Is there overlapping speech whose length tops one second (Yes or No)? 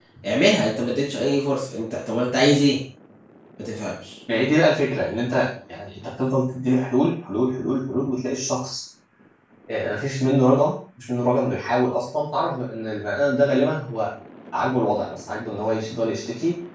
No